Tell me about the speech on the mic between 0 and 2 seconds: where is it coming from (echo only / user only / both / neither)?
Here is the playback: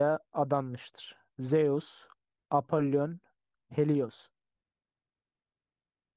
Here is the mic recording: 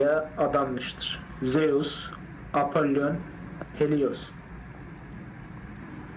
echo only